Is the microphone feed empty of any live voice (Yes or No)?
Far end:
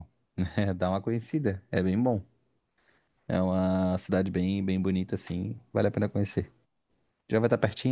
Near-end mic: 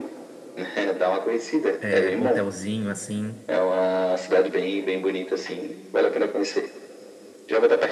No